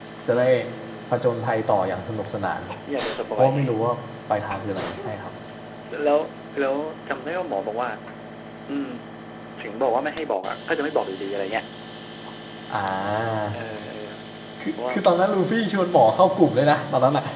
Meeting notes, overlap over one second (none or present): none